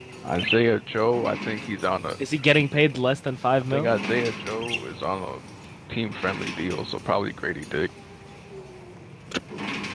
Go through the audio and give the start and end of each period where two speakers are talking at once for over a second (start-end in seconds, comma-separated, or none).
none